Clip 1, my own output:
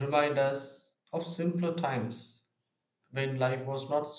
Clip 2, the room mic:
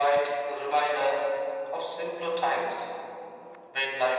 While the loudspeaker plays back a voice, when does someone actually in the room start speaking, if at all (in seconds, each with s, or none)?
none